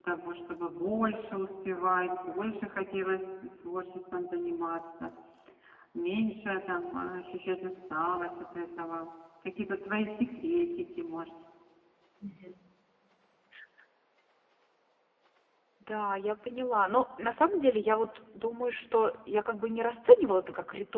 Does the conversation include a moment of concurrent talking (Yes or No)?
No